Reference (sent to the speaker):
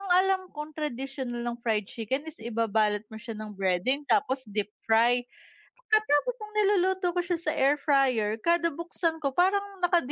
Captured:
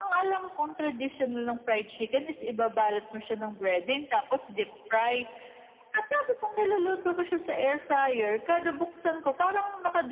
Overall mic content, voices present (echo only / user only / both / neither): echo only